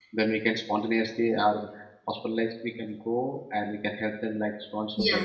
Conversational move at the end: taking over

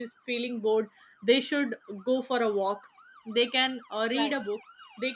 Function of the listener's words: listening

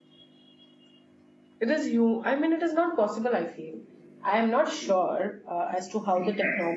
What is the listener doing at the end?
taking over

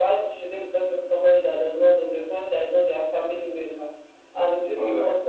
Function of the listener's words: listening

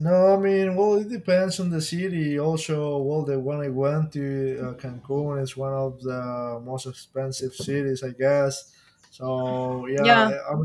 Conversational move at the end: listening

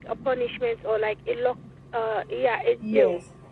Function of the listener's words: taking over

